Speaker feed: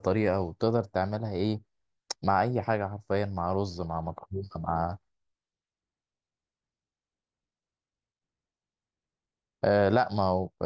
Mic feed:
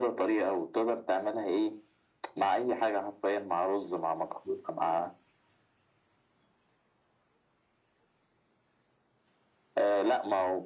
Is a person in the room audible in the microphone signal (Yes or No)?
No